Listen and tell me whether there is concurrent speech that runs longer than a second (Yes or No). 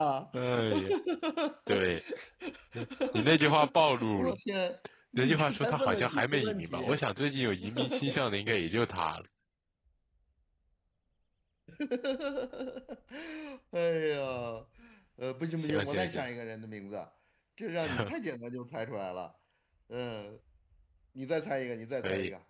Yes